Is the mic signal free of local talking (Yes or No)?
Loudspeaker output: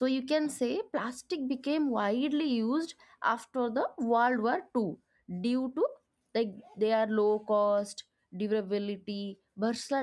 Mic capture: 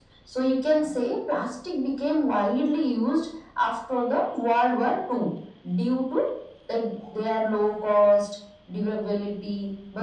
Yes